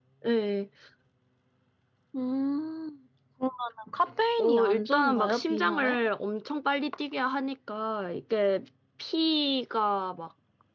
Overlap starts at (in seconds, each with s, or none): 4.4 s